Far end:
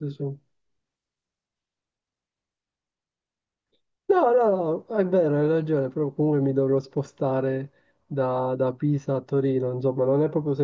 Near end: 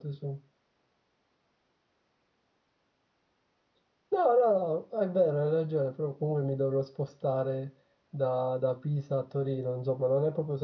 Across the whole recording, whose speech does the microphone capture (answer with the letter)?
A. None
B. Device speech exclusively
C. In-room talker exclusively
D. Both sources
B